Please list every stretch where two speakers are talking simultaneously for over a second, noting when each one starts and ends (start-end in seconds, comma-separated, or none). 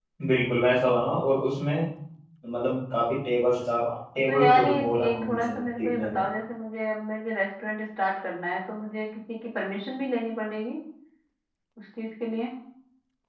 4.2-6.2